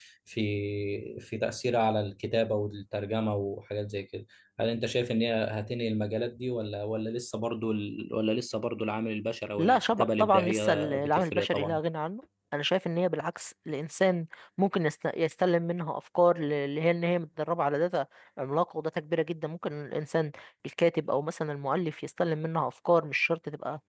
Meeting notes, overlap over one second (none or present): present